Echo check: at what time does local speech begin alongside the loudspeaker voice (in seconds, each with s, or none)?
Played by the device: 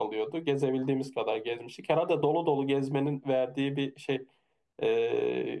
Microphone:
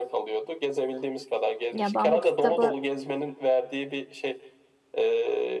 1.7 s